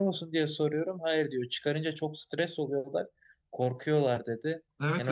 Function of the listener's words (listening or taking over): taking over